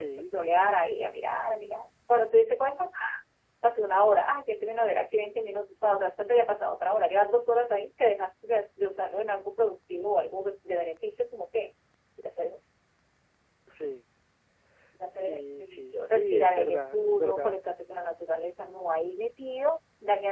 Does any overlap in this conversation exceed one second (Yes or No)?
Yes